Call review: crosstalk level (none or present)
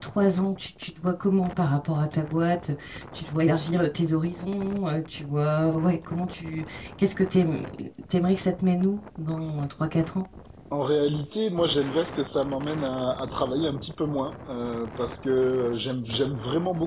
none